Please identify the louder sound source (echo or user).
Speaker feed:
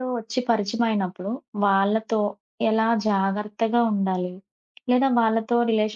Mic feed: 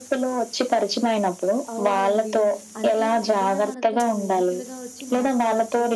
echo